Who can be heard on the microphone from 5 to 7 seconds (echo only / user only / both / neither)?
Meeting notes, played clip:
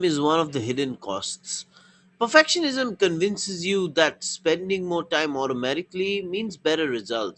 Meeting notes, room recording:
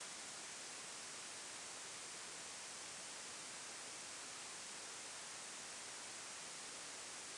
neither